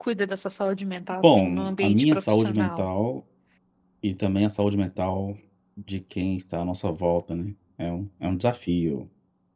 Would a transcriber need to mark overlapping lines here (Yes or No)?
Yes